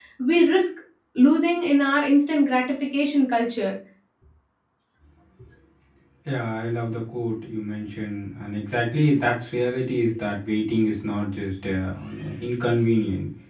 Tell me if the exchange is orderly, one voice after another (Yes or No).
Yes